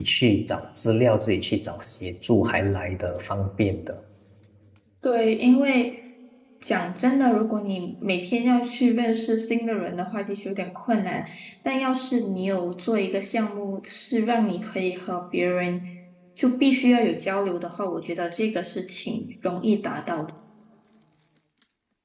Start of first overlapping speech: none

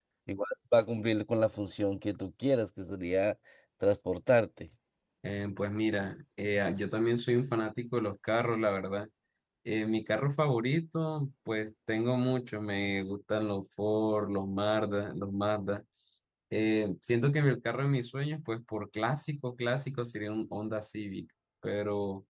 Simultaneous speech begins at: none

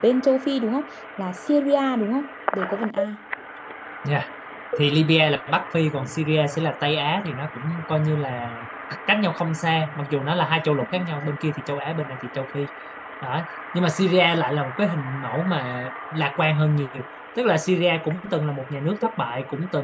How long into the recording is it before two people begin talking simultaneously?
none

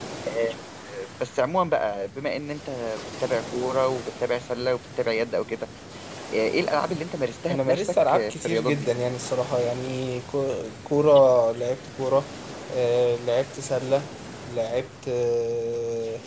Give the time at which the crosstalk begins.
7 s

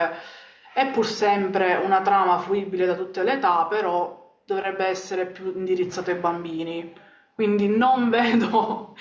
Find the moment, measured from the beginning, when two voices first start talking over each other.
none

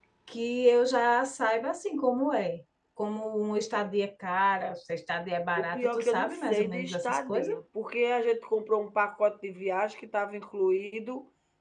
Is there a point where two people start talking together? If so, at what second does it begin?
6 s

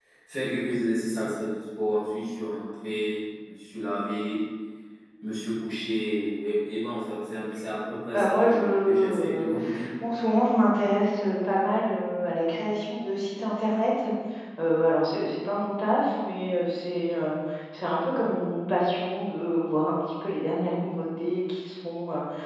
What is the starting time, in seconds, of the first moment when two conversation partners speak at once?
8 s

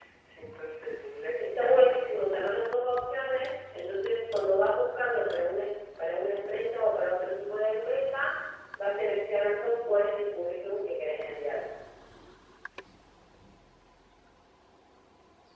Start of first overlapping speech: 1 s

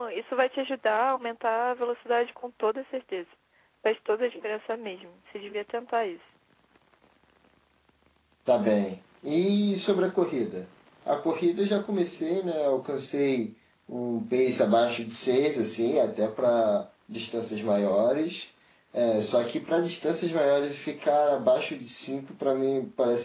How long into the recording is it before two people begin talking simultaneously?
none

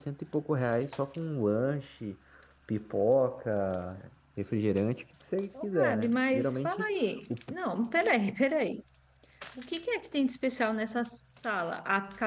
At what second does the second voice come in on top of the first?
6 s

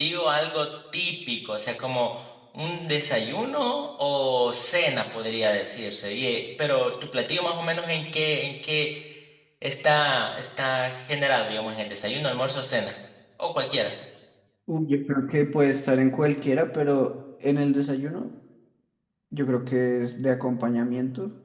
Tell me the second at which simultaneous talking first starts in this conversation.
none

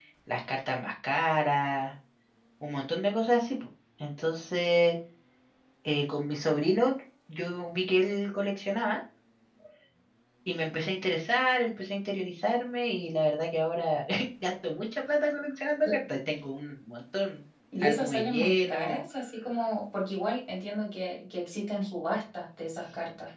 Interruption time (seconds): 18 s

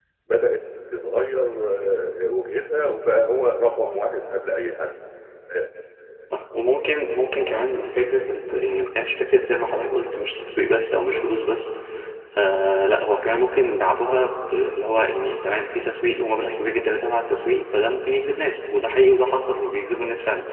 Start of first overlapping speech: none

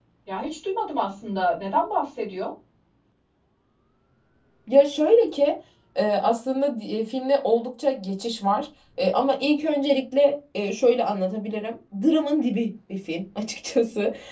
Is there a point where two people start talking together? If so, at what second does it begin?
none

